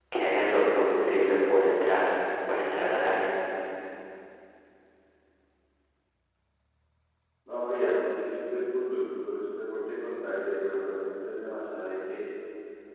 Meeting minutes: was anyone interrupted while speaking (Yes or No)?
No